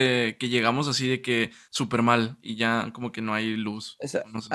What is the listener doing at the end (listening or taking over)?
taking over